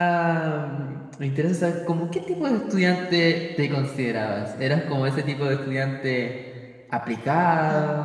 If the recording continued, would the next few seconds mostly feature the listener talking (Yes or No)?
No